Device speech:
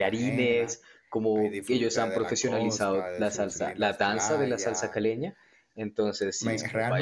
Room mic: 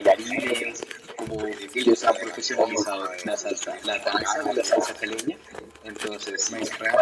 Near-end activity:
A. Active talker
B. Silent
B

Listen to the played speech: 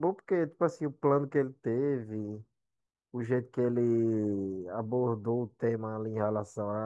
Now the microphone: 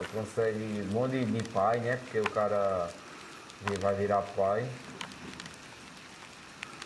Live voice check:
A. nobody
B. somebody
B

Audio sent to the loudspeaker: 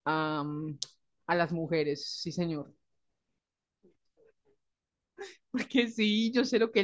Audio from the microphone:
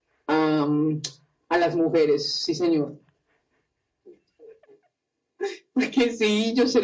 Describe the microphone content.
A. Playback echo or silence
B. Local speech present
A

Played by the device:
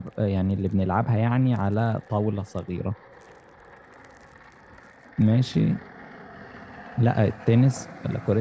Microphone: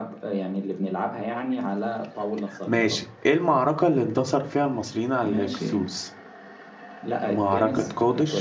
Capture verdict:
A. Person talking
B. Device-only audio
A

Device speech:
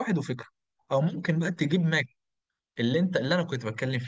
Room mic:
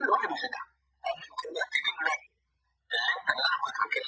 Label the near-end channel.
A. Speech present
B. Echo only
B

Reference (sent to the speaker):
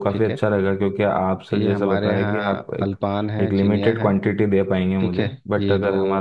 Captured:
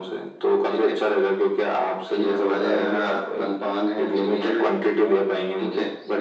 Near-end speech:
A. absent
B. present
B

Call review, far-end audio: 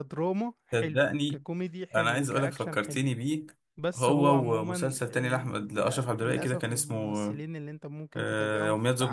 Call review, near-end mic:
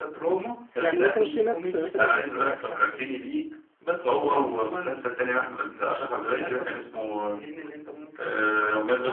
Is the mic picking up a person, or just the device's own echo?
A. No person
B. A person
B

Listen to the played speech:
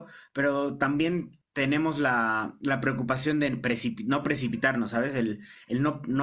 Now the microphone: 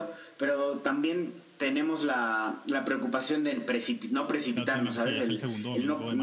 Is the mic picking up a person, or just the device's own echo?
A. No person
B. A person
B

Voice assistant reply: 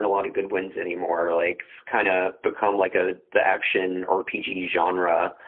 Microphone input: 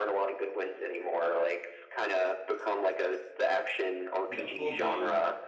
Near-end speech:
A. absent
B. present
B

